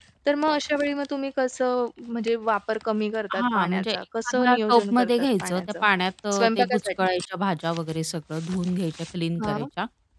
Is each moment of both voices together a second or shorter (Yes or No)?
No